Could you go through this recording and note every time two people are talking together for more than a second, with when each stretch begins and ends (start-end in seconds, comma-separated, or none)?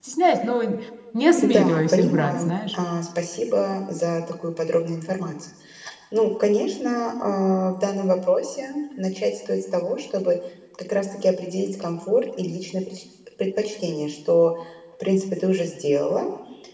1.4-2.8